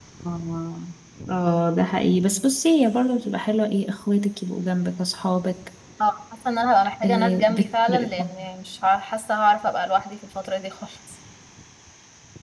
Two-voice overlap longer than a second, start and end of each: 7.0-8.3

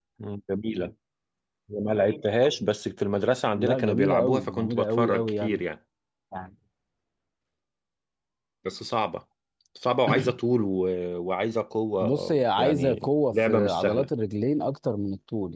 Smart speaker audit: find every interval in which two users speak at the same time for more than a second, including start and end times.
3.6-5.6, 12.0-14.1

